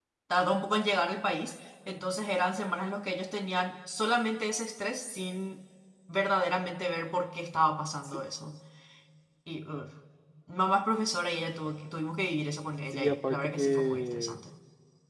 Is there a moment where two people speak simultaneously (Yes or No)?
Yes